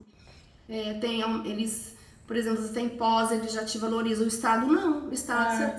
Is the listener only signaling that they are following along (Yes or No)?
Yes